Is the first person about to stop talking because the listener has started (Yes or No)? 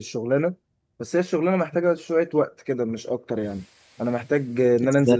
No